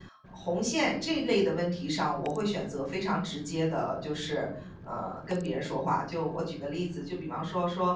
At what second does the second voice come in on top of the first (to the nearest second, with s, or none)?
none